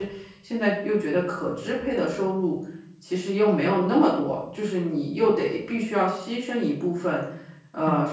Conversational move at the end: listening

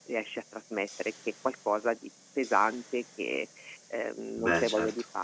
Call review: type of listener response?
listening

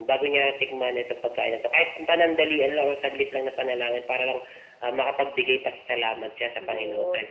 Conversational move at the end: taking over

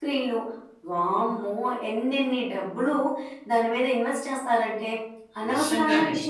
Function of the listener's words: listening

